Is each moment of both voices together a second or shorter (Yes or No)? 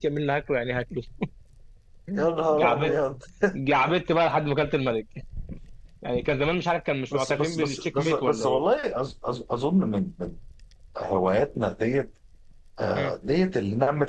No